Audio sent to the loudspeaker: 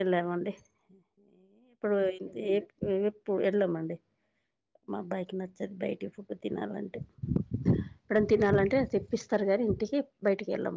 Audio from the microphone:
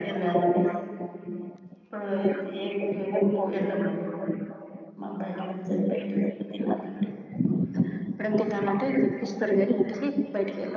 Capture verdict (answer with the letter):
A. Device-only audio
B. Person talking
A